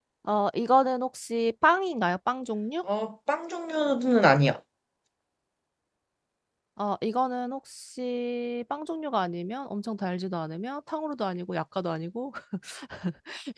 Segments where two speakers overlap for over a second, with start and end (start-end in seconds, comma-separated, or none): none